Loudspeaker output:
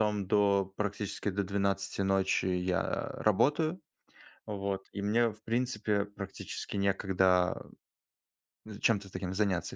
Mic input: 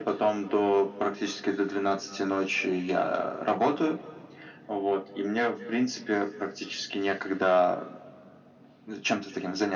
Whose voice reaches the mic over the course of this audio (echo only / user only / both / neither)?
echo only